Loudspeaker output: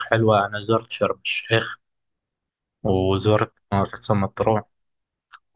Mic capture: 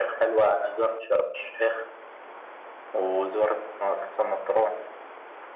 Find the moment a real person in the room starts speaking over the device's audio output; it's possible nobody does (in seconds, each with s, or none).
none